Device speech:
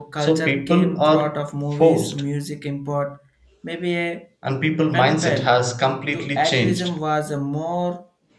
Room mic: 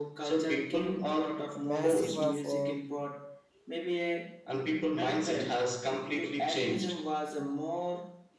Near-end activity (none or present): present